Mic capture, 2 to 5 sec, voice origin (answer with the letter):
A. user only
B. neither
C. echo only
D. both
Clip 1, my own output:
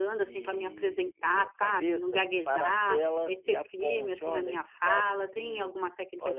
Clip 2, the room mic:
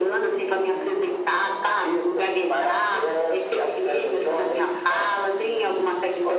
C